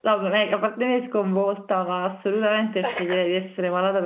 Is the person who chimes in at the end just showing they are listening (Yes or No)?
Yes